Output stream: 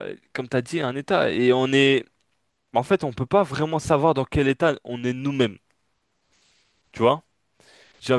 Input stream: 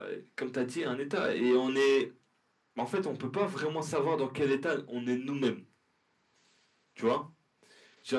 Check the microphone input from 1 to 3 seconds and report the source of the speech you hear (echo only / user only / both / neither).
echo only